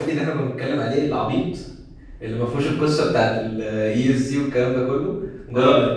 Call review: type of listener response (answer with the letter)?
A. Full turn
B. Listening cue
A